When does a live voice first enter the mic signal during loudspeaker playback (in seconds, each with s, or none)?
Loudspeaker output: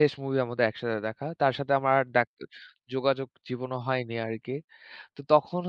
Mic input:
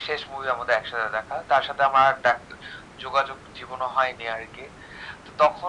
none